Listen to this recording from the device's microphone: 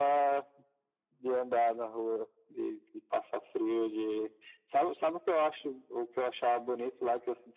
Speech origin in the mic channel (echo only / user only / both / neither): echo only